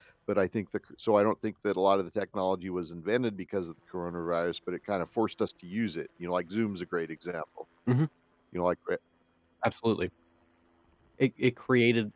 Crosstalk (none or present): none